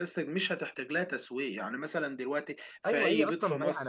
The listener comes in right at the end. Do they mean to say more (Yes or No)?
Yes